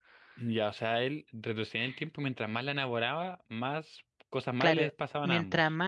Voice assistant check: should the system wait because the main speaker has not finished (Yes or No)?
No